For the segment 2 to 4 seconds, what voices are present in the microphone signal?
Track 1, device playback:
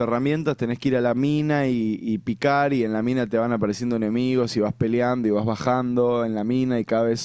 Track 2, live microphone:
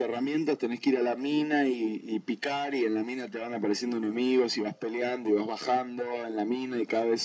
echo only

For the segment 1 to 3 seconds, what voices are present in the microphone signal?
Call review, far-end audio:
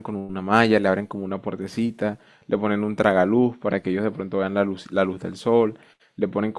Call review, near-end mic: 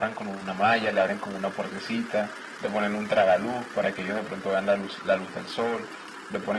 echo only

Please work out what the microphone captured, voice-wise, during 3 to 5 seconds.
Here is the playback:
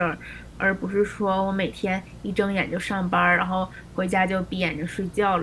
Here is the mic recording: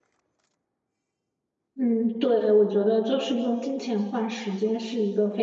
user only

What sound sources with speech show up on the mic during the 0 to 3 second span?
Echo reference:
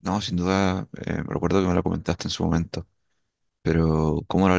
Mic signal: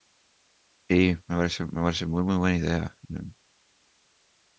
user only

